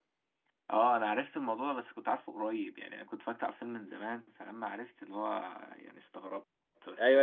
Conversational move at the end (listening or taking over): taking over